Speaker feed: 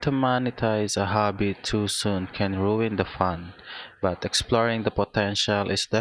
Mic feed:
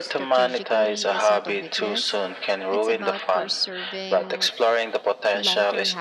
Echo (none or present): present